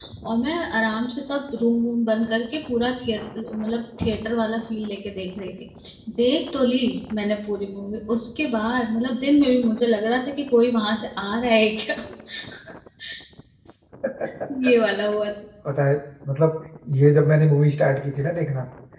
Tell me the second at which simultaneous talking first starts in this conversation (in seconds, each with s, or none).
none